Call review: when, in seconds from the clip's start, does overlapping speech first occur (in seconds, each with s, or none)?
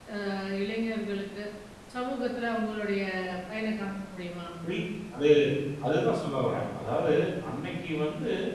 none